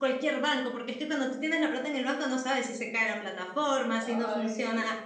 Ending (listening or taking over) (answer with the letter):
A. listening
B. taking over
A